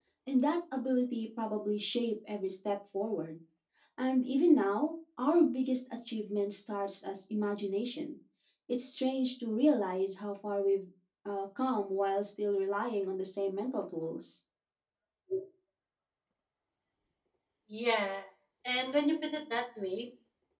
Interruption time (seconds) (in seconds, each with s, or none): none